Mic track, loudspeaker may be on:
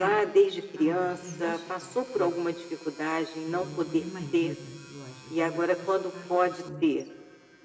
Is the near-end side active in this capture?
Yes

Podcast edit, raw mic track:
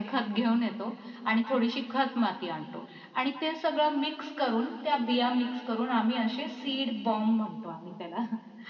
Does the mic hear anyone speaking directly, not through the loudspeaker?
No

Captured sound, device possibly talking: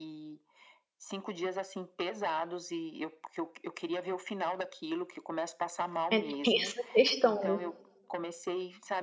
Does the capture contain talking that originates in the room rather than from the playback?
Yes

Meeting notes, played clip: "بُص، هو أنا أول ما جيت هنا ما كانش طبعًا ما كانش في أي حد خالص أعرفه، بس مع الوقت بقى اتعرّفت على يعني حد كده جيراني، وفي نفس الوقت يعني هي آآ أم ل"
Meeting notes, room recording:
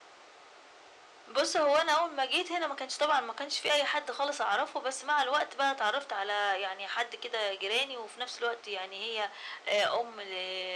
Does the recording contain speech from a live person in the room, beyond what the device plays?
No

